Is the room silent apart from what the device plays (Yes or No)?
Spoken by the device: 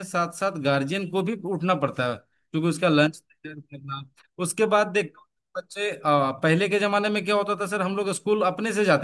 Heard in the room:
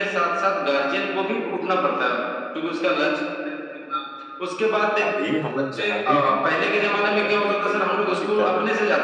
No